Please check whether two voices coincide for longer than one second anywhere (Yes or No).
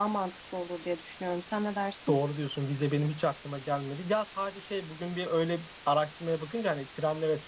No